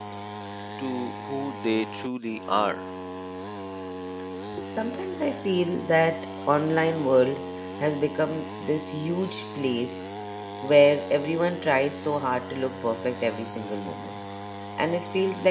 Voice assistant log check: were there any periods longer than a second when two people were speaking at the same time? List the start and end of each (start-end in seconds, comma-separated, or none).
none